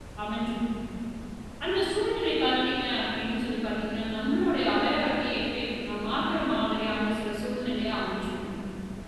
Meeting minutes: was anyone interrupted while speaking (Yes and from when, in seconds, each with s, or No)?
No